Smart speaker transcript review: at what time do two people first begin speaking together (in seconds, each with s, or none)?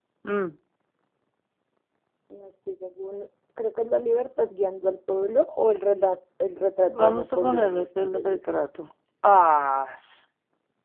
6.9 s